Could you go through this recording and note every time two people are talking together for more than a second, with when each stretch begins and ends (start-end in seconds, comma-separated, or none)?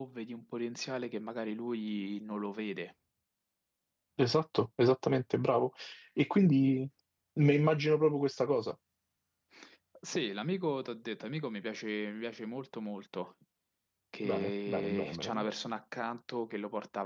14.2-15.4